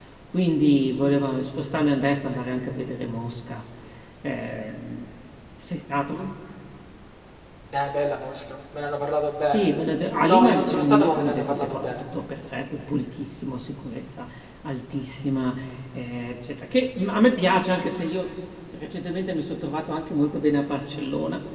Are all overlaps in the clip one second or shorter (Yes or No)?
No